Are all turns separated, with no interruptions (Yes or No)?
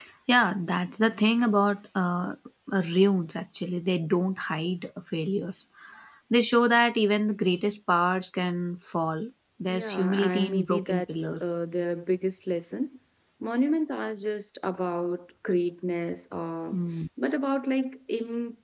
No